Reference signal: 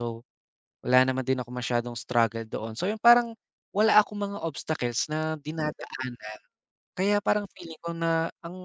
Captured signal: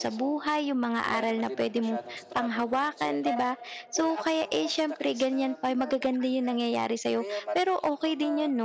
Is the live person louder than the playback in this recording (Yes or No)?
Yes